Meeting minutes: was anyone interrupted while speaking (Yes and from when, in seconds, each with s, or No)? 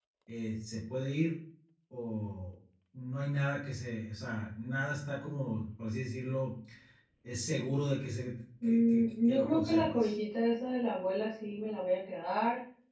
Yes, from 8.6 s